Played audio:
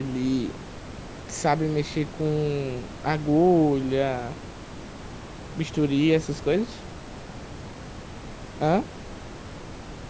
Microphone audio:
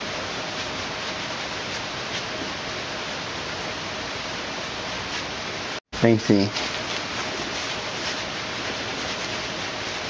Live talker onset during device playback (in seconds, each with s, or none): 6.0 s